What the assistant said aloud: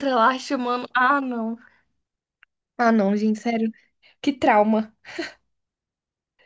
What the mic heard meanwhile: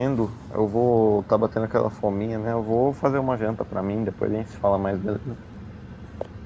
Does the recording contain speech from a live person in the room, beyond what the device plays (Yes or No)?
Yes